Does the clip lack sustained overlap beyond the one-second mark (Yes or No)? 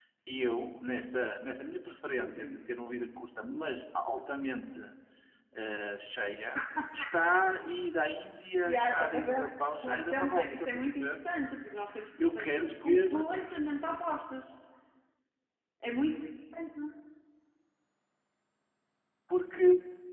No